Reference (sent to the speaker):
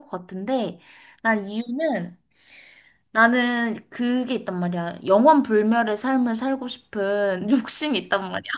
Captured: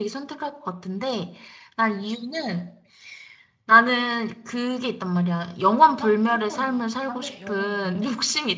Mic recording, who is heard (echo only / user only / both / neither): both